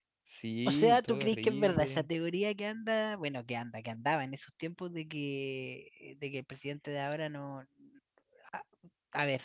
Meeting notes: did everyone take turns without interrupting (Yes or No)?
No